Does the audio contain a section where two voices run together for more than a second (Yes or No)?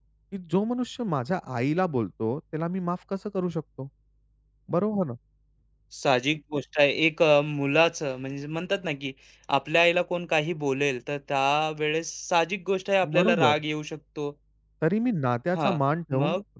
No